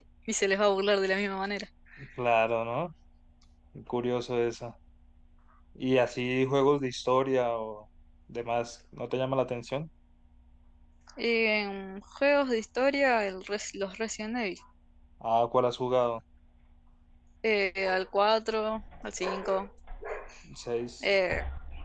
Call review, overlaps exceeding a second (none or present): none